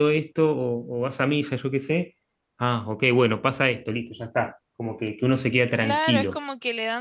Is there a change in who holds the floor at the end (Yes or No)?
Yes